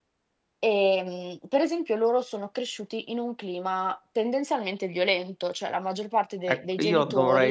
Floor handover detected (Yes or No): Yes